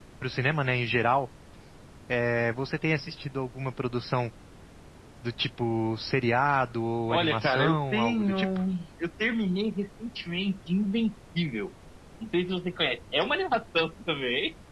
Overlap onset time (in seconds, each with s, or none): 7.1 s